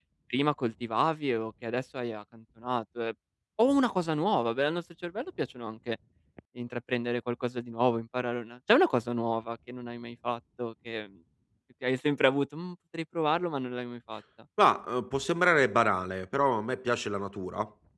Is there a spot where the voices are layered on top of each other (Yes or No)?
No